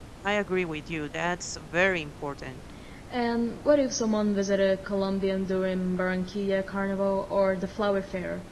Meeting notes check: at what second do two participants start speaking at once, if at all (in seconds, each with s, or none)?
none